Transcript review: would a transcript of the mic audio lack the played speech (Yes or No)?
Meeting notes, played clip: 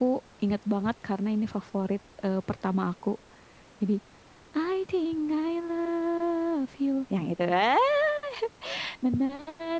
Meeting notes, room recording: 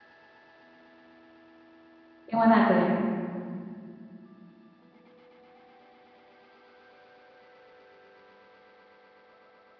Yes